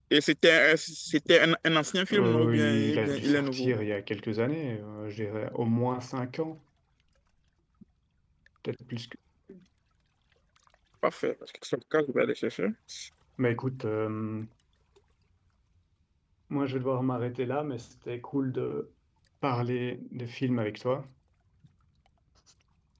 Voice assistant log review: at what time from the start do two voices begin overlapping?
2 s

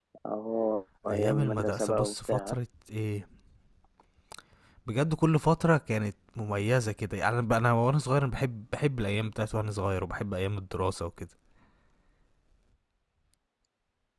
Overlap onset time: 1 s

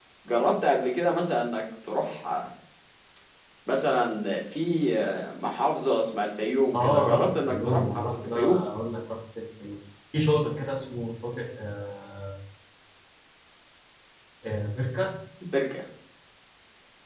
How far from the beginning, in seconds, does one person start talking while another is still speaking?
7 s

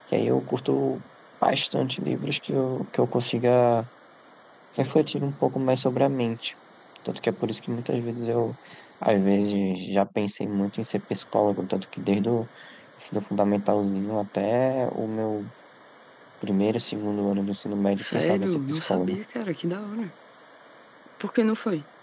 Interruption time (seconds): 18 s

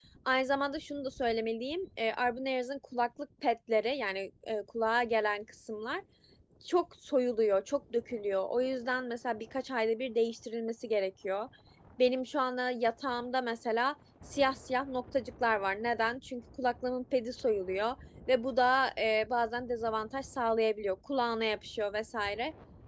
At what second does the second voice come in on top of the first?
none

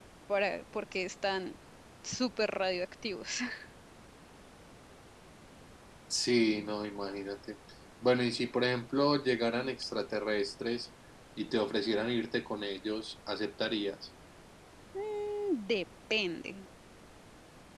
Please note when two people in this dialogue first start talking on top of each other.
none

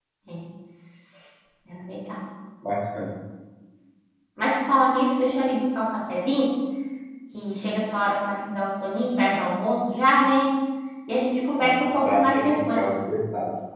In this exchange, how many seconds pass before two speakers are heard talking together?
12 s

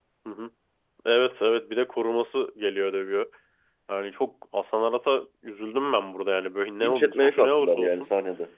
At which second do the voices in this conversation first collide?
7 s

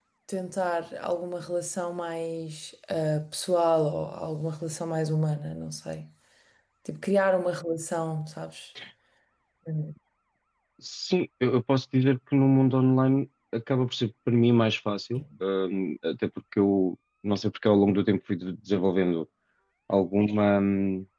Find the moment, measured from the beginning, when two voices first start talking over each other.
none

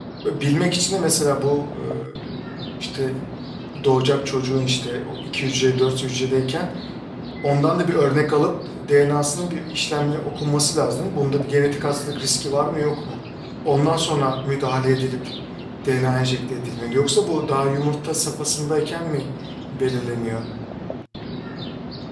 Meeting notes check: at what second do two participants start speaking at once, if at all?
none

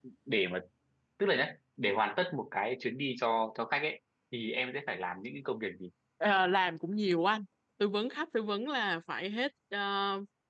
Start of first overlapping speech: none

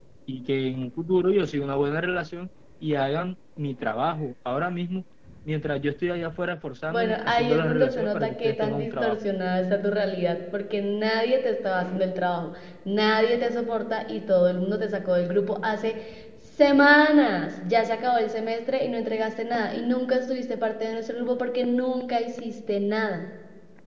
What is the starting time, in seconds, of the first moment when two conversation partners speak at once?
7 s

